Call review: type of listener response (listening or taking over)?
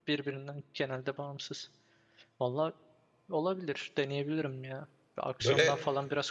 listening